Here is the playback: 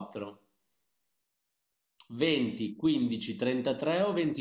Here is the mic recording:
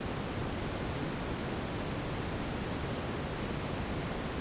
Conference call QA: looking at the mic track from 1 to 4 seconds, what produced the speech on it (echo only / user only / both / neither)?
neither